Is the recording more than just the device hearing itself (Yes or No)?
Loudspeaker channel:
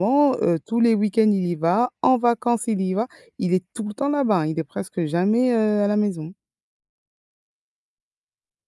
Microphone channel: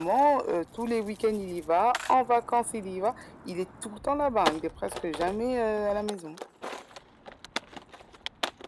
No